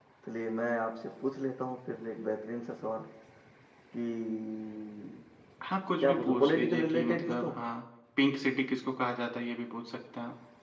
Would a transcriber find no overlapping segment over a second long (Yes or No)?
No